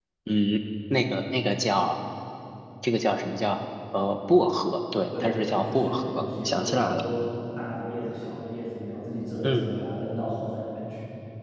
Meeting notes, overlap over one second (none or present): present